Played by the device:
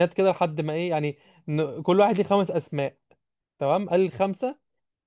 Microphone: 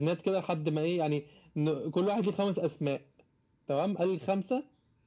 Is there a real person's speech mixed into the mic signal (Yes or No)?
No